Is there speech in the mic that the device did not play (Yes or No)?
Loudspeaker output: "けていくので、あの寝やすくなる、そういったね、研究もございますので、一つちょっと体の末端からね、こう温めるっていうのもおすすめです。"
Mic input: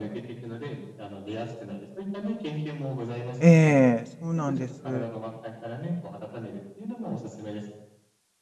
Yes